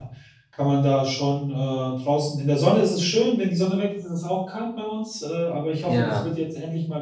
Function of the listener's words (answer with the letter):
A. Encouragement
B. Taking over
A